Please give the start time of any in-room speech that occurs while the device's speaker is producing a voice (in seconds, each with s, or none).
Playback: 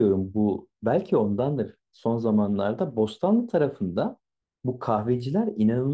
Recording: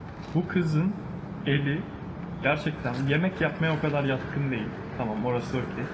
0.3 s